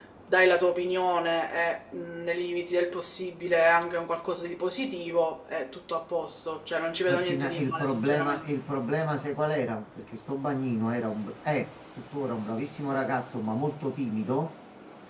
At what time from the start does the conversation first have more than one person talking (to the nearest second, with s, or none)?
7 s